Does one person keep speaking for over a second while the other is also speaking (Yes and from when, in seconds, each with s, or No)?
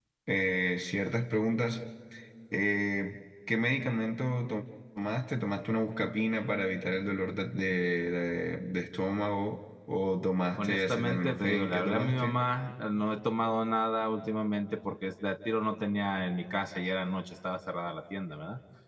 Yes, from 10.6 s